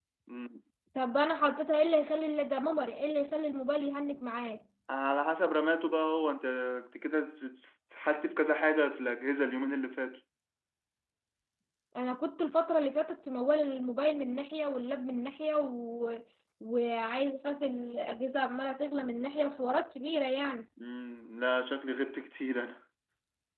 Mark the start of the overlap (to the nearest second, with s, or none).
none